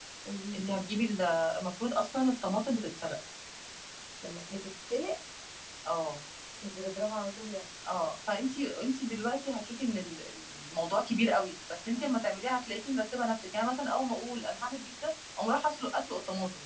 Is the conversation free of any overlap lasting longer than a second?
Yes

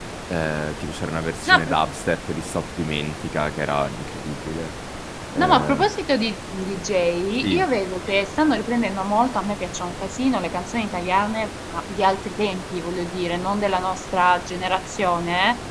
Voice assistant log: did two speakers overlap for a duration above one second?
No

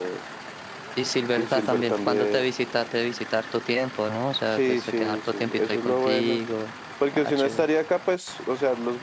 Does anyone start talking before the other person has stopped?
Yes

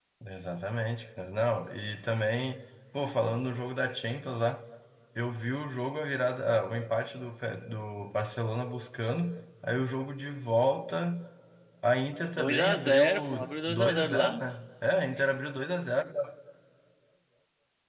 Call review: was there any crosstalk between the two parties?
Yes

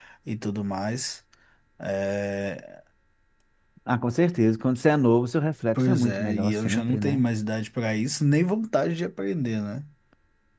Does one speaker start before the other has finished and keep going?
Yes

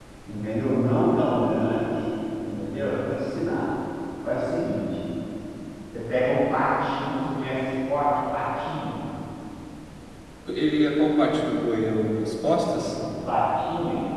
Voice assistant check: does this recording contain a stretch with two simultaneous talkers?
No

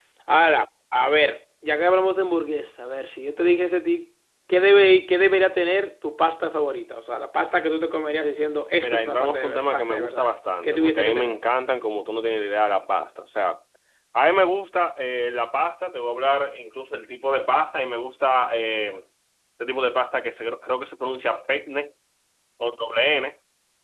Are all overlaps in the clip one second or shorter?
No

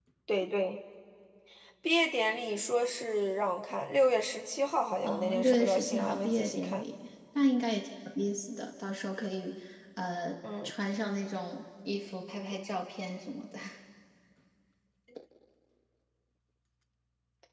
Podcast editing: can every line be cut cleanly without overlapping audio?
No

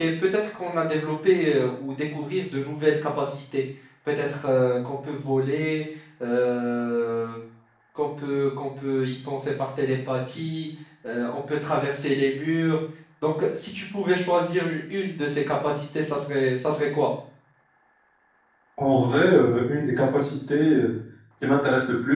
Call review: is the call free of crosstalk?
Yes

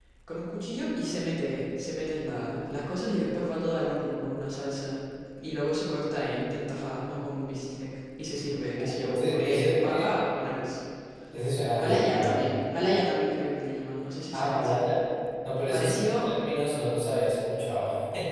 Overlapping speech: Yes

